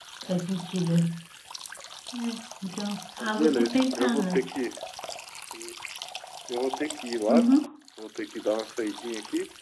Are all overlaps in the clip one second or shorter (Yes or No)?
No